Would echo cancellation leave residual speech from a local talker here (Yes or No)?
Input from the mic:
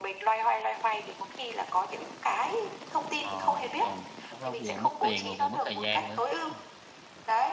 Yes